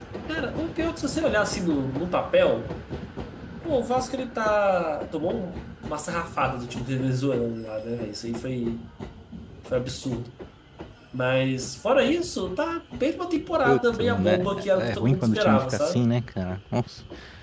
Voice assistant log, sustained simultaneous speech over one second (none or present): present